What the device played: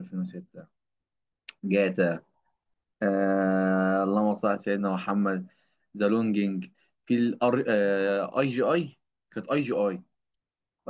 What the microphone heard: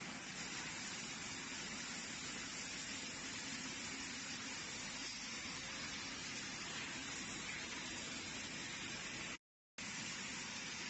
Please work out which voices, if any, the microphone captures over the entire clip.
neither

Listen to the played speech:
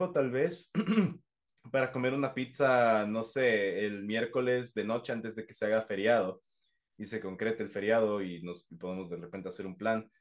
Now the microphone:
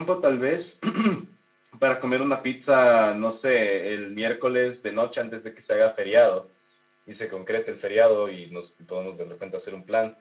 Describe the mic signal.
echo only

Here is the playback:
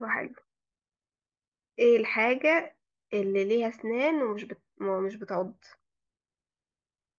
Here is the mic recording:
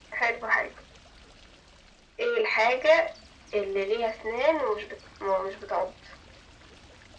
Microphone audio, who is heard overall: echo only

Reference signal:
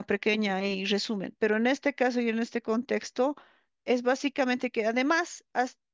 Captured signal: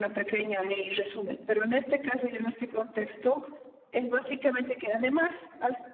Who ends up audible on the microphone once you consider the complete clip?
echo only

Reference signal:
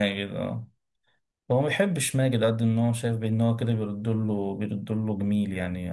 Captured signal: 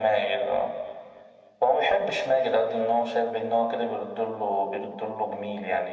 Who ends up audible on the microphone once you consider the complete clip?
echo only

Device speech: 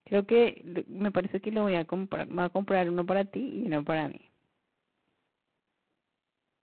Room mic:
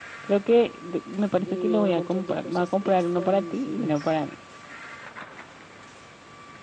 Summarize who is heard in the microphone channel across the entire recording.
both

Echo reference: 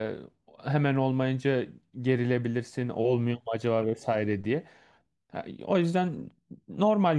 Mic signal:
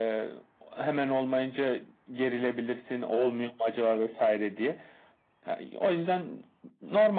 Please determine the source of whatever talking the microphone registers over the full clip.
echo only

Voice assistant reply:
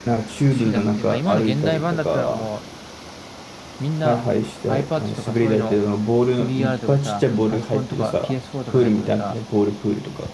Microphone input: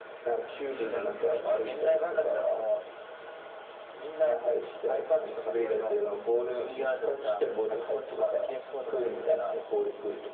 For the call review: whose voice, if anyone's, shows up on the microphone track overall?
echo only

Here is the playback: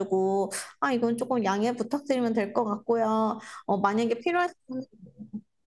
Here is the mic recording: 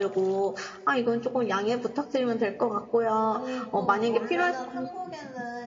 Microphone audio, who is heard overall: both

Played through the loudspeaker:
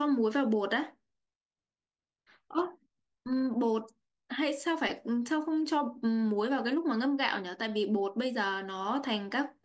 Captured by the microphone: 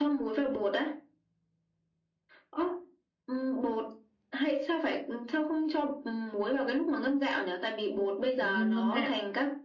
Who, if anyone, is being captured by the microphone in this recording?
both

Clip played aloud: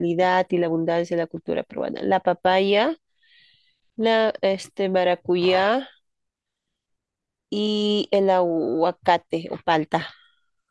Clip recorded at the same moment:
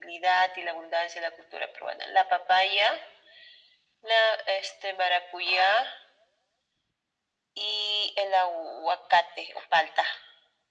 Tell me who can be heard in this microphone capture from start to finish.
echo only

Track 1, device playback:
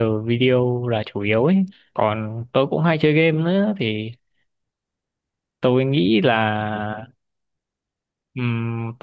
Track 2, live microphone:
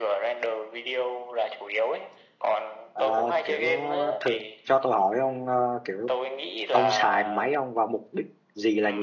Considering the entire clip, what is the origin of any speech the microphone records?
both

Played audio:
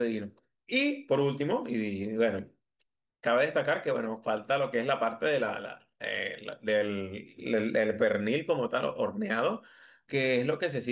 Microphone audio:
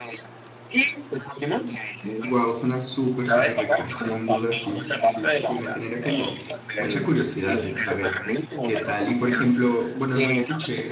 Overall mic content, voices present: both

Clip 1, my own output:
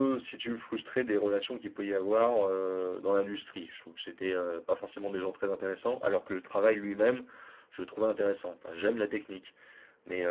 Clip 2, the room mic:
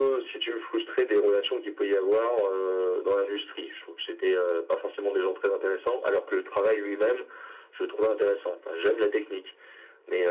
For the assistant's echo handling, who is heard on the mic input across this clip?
echo only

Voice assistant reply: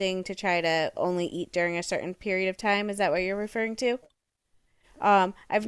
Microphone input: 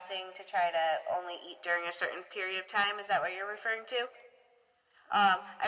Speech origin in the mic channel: echo only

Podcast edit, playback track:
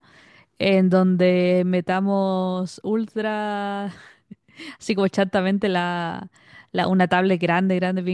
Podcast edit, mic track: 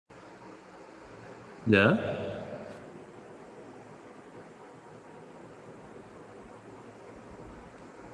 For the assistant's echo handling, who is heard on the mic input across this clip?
user only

